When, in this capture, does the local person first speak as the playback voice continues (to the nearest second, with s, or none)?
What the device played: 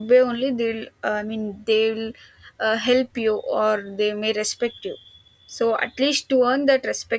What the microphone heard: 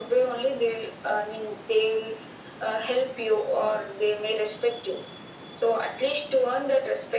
none